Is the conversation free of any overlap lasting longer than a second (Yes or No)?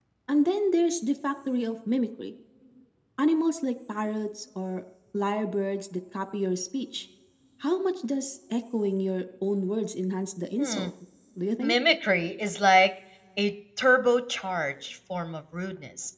Yes